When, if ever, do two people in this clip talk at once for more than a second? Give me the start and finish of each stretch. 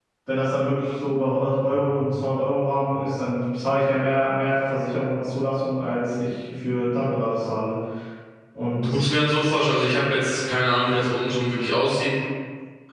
none

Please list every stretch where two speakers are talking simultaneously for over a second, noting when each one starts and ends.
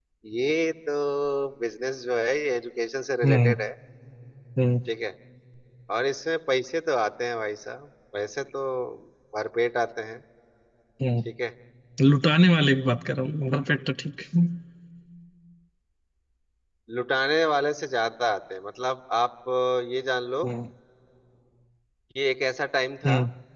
none

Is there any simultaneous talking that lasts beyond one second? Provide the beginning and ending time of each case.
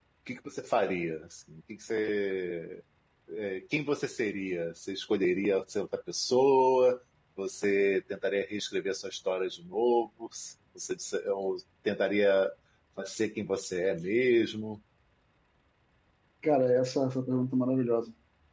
none

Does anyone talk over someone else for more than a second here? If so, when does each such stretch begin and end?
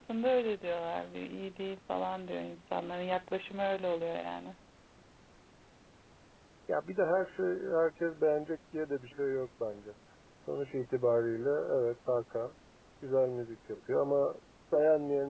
none

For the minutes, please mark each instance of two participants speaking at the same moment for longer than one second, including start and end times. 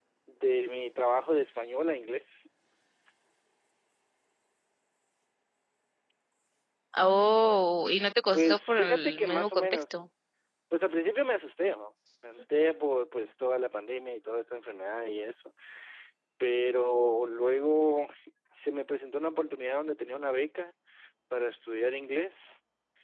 8.3-10.0

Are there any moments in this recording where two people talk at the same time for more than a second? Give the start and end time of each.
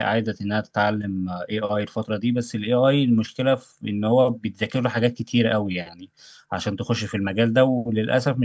none

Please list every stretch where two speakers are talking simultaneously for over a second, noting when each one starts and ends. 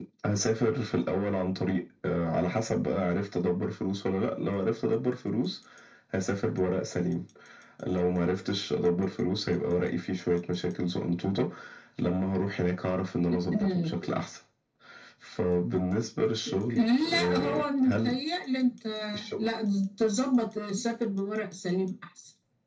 16.8-18.2

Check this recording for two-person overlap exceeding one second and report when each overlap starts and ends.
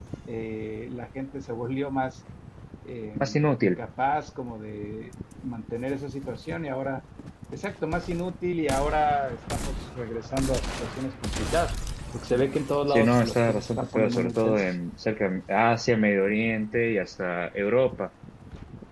12.9-14.7

